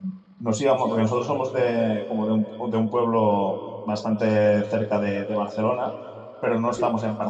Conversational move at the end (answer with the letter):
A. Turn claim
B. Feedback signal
B